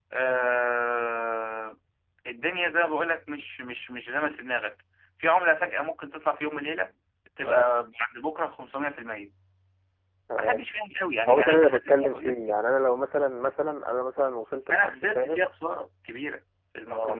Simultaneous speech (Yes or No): Yes